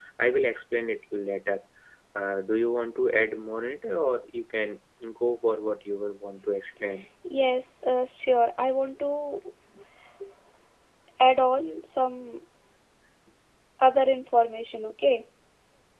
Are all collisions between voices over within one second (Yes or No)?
Yes